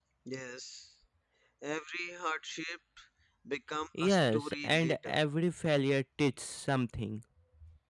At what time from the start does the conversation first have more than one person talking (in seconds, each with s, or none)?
4.0 s